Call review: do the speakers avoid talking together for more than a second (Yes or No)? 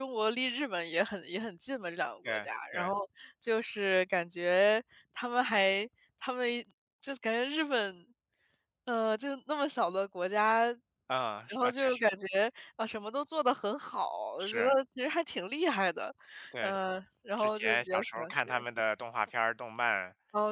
No